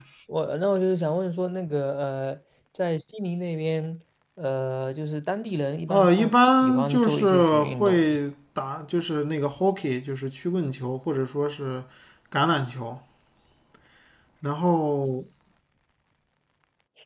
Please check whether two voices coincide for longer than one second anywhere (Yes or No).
Yes